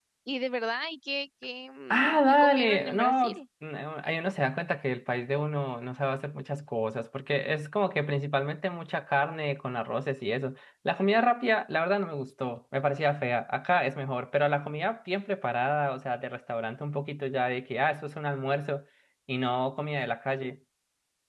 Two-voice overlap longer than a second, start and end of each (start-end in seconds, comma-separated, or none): 1.9-3.4